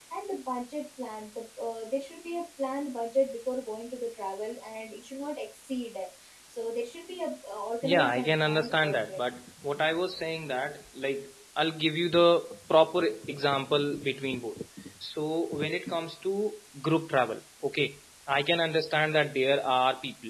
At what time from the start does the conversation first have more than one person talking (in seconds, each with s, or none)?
7.8 s